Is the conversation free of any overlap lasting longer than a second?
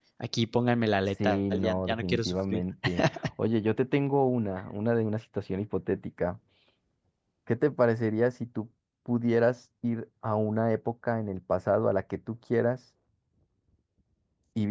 No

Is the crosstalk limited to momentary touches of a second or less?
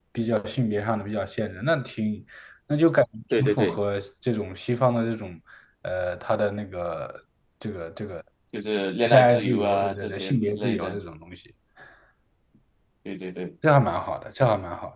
No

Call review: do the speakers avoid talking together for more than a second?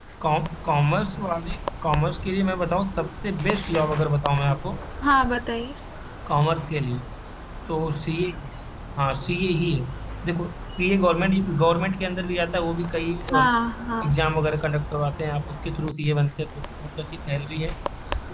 Yes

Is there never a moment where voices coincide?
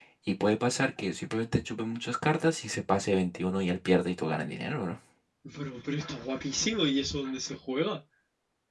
Yes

